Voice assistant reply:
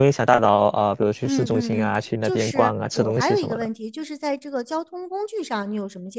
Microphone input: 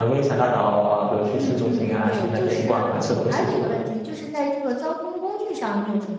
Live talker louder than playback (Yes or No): No